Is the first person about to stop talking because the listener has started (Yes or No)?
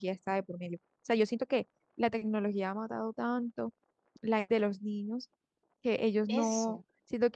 No